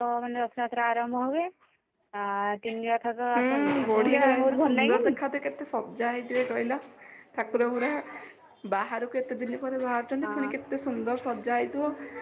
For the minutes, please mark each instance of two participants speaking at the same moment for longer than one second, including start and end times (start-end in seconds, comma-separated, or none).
3.4-5.1